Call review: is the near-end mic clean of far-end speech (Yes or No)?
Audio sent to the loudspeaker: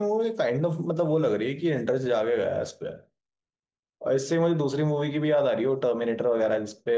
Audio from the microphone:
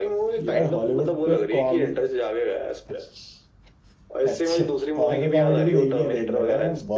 No